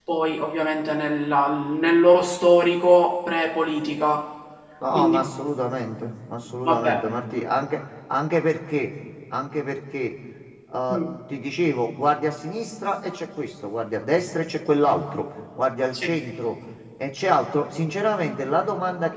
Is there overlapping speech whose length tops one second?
No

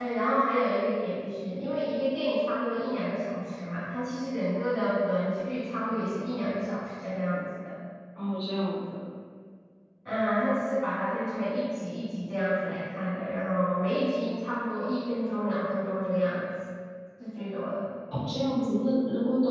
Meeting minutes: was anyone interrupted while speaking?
No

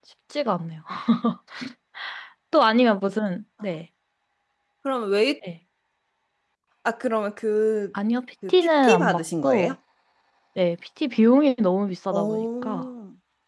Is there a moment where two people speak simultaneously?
Yes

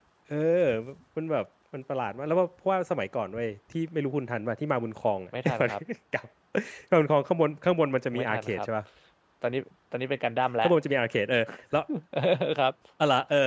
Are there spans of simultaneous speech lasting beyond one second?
No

